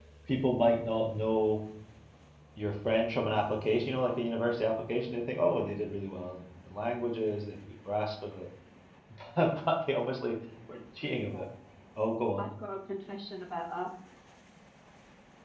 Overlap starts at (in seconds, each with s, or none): none